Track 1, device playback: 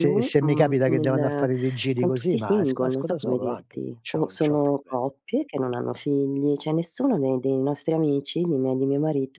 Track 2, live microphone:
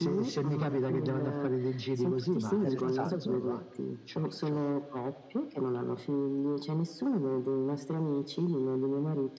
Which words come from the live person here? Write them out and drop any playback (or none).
Interessante.